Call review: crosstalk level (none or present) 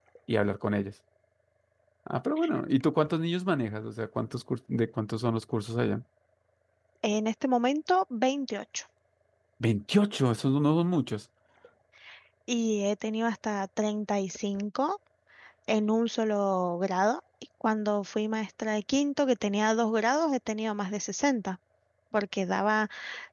none